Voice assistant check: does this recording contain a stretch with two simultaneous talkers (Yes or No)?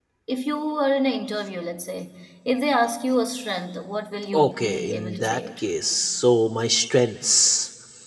Yes